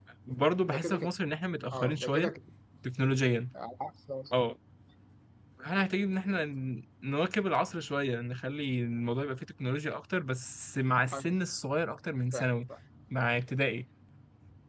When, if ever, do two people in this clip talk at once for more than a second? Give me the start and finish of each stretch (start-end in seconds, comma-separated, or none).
none